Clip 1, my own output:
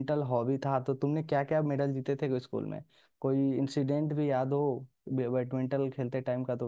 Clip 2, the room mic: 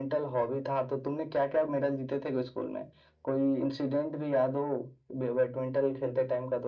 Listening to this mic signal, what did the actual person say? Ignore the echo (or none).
none